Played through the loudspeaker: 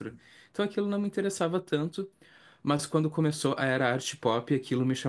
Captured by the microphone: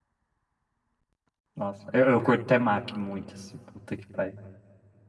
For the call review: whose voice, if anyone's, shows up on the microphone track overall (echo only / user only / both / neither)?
user only